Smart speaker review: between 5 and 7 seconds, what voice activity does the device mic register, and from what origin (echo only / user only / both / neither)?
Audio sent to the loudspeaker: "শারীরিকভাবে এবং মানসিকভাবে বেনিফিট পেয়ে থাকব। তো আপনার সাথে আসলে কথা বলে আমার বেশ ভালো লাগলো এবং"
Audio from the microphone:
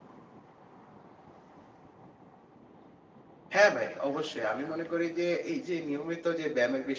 user only